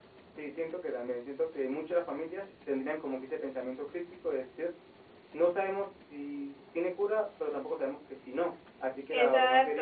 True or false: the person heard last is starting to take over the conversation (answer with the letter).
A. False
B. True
B